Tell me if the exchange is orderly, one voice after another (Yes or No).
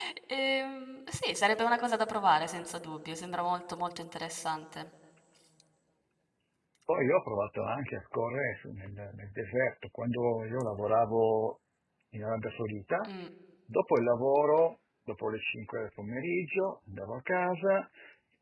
Yes